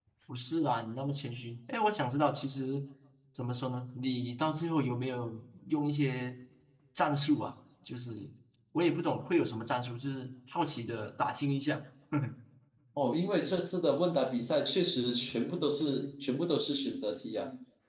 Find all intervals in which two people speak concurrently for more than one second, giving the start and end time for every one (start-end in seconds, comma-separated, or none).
none